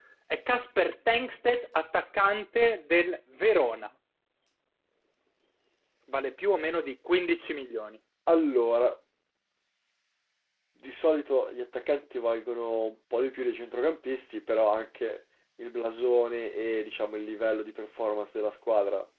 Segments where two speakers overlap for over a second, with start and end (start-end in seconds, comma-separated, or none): none